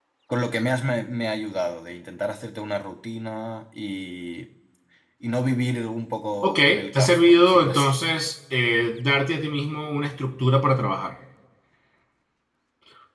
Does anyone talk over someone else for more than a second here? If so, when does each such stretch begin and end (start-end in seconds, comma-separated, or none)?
6.4-7.9